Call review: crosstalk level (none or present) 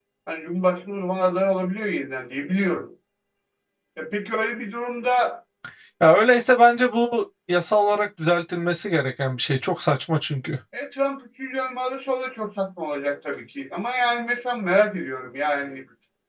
none